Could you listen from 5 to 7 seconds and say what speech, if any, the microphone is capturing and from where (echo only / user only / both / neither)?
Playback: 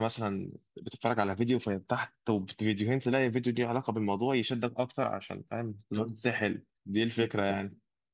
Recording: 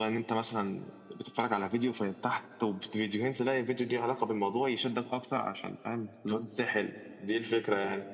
echo only